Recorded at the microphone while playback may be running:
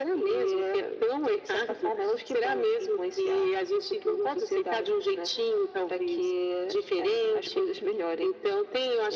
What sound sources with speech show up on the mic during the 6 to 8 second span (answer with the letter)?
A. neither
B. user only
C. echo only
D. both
C